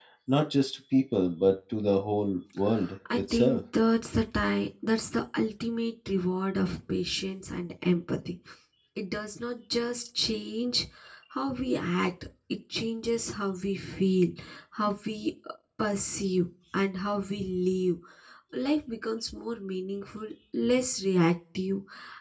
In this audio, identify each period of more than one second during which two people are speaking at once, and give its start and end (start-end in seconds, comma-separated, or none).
none